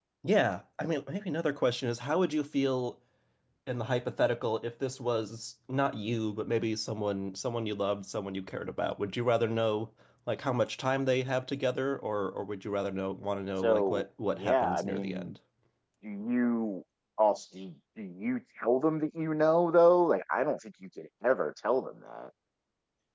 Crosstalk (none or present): present